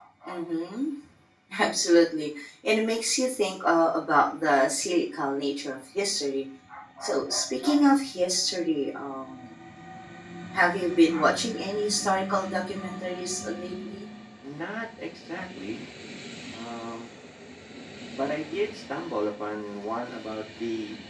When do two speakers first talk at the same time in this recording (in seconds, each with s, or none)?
none